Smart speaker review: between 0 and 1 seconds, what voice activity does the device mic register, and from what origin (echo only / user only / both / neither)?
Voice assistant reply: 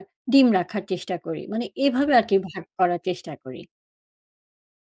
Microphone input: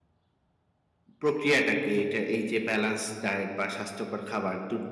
neither